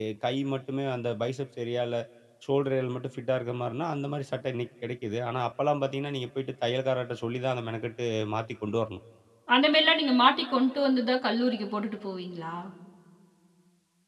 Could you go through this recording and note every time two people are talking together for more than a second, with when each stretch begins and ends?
none

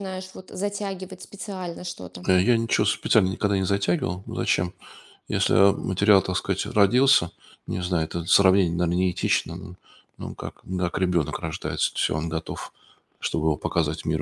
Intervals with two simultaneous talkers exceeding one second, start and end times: none

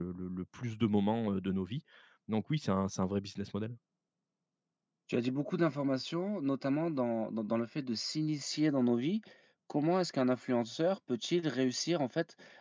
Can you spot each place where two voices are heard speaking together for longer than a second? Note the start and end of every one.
none

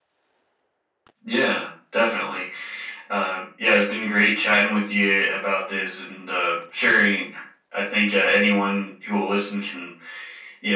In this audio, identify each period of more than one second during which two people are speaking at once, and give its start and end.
none

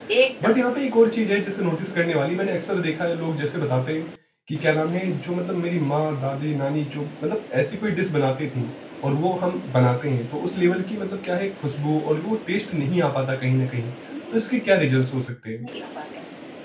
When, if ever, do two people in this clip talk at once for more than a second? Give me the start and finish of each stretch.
none

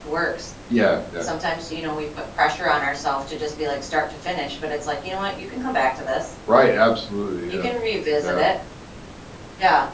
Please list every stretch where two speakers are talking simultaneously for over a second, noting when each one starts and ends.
none

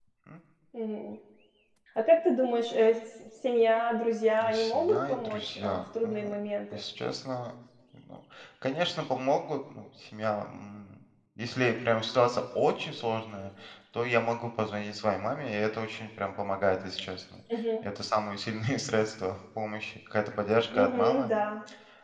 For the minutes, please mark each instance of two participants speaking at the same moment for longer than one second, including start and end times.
4.5-6.3

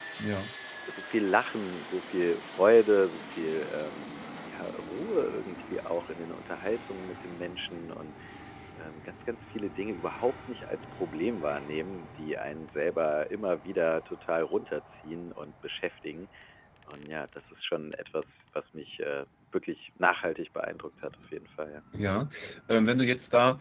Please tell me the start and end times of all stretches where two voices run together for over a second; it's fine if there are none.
none

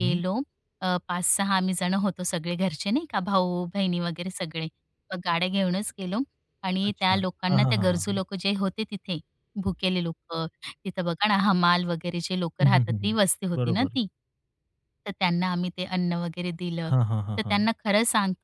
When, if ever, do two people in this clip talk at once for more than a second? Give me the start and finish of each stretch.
6.9-8.2

